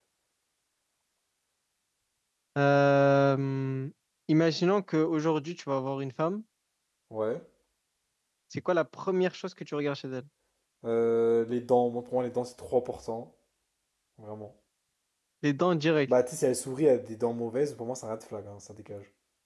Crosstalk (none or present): none